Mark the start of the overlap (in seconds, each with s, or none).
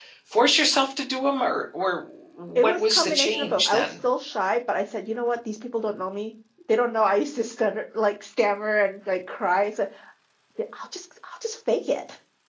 2.6 s